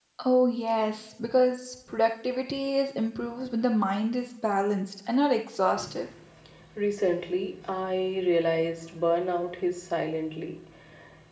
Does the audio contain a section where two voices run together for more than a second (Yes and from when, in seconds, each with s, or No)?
No